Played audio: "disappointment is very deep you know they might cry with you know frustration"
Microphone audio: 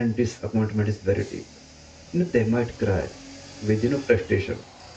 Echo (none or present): present